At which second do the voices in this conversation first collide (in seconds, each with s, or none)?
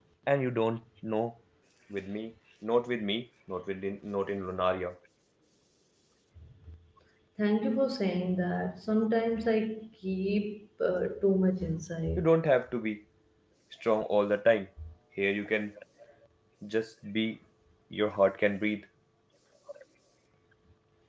none